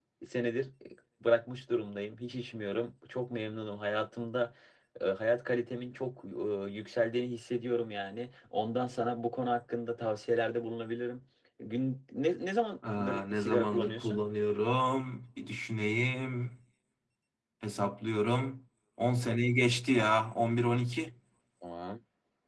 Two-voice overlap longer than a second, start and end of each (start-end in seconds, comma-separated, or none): 13.0-14.2